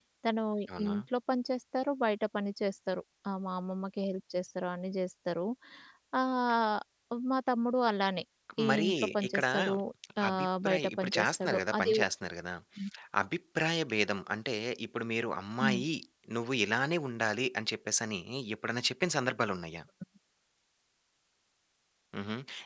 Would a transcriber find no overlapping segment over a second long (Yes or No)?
No